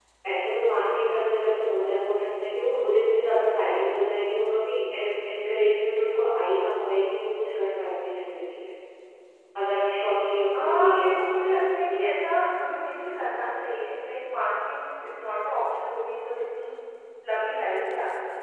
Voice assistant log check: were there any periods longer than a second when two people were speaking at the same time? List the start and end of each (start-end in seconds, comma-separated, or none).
10.6-11.9